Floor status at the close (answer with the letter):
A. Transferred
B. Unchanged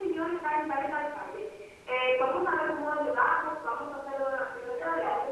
A